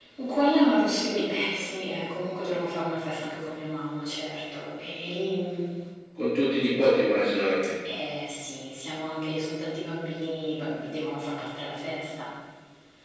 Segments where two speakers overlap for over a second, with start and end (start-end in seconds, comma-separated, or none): none